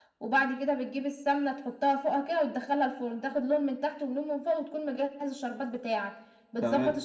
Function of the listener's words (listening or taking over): listening